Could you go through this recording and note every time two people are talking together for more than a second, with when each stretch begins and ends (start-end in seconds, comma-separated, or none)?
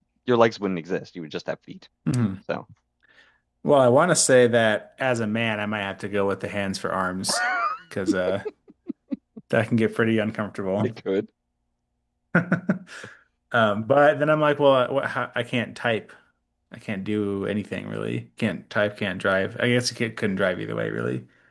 none